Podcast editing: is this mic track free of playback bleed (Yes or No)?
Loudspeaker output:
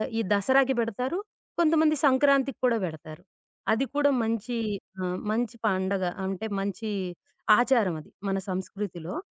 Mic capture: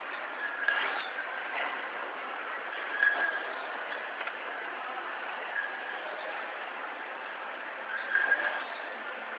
Yes